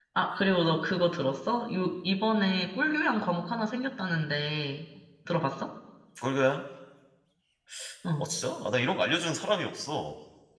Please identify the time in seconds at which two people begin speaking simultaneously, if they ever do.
none

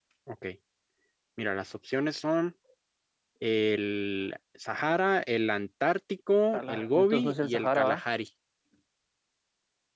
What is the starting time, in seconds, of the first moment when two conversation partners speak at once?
7 s

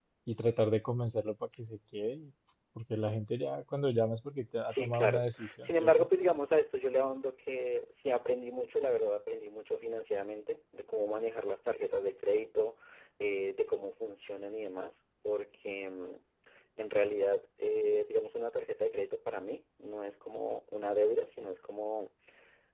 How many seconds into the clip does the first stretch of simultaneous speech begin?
5 s

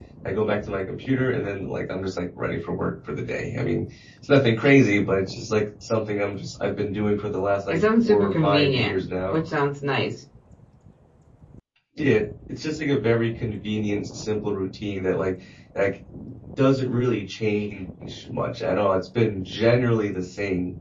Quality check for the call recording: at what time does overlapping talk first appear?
8 s

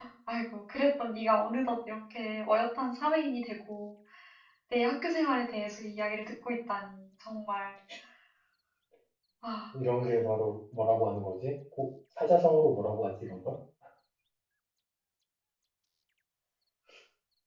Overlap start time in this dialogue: none

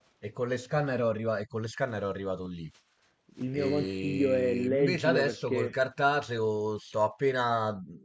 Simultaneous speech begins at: 4 s

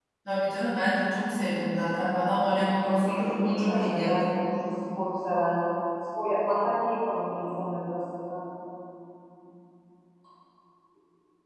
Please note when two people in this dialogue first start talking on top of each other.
3 s

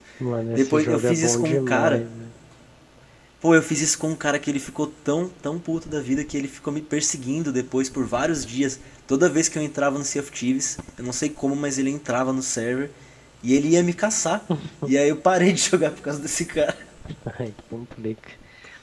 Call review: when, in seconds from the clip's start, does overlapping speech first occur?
1 s

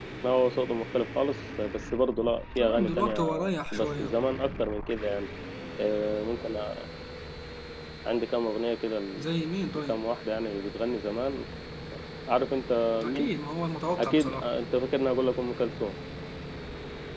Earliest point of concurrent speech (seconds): 3 s

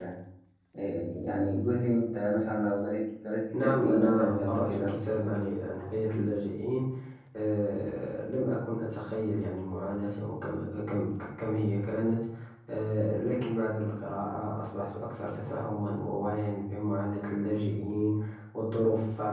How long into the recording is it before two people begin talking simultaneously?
4 s

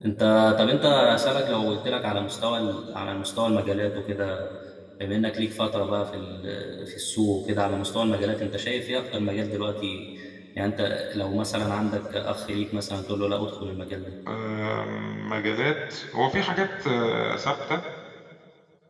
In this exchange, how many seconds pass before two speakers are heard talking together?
none

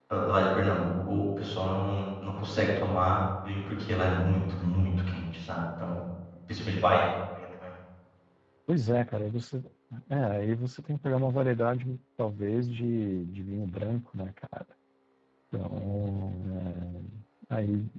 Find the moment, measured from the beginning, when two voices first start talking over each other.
none

